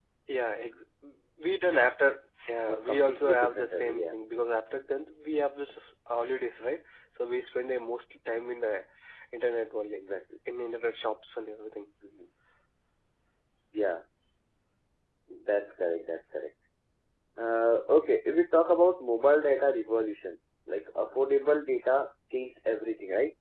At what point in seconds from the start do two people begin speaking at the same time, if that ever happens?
2.6 s

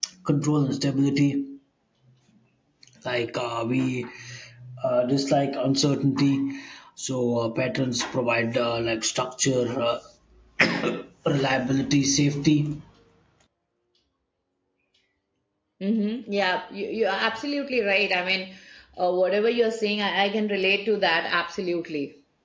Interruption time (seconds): none

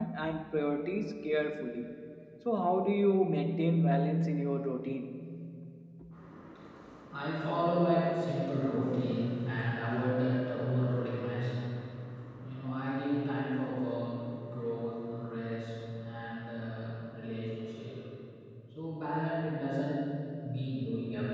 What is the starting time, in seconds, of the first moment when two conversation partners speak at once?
none

